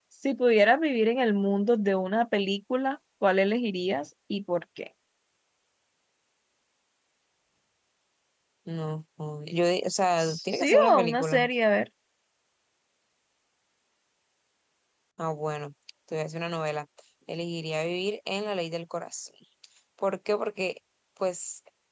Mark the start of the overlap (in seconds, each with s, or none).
10.2 s